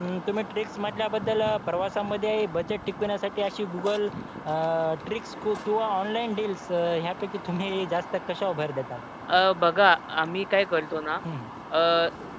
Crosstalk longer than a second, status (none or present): none